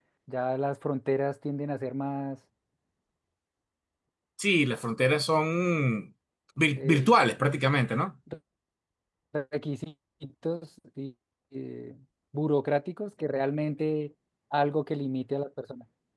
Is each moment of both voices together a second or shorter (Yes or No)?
Yes